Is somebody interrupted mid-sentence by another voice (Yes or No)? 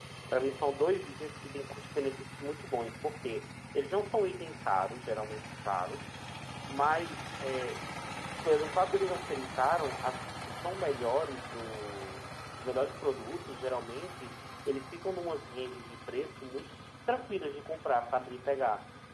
No